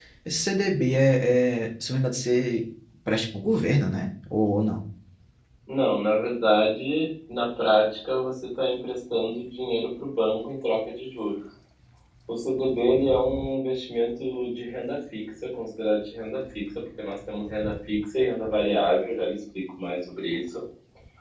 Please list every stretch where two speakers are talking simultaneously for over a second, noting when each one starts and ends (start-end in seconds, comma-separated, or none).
none